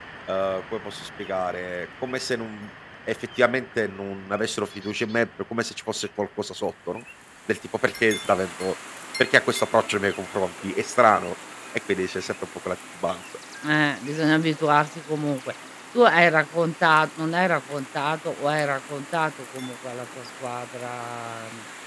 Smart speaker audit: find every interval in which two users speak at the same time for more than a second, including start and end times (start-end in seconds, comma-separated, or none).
none